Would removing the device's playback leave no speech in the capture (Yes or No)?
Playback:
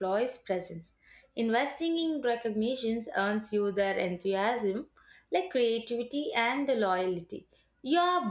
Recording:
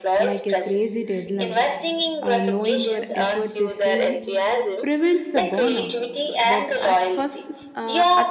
No